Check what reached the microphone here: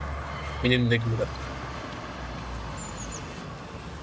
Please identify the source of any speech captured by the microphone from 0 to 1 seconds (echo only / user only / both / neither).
user only